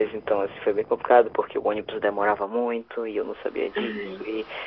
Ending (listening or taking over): listening